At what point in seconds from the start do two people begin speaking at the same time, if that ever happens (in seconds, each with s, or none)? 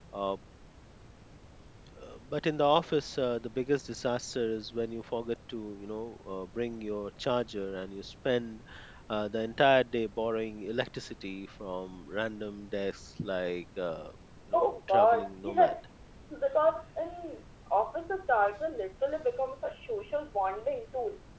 14.5 s